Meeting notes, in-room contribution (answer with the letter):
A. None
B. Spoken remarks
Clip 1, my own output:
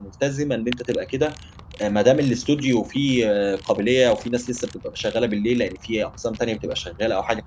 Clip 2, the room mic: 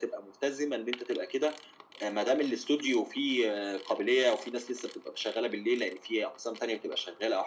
A